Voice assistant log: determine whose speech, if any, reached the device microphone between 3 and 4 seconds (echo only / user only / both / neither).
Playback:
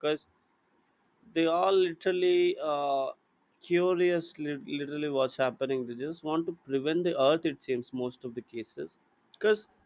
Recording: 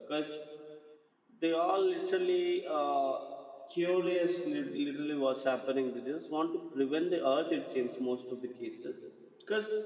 echo only